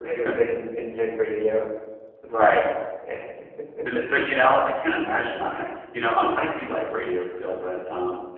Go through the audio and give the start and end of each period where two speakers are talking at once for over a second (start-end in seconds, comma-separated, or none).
none